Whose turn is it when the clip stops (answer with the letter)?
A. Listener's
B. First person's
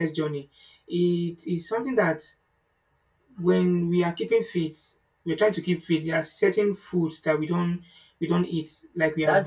A